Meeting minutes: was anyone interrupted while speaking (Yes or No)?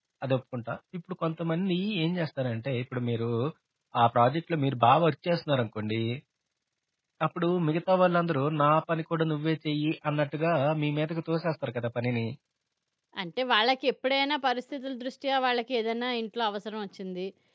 No